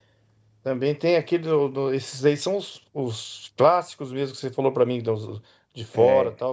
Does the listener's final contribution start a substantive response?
No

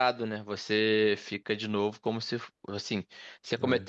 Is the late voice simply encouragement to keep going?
Yes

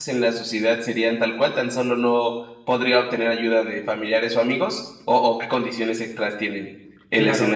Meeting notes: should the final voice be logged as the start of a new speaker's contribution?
Yes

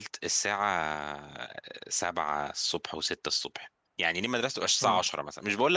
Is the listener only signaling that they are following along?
Yes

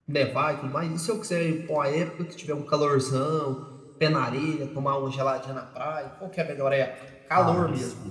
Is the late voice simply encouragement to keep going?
No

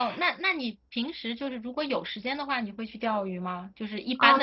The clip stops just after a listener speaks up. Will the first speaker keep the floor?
No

